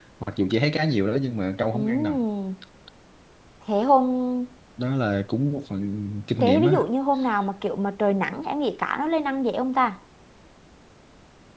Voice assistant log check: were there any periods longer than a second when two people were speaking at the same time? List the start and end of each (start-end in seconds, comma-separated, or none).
none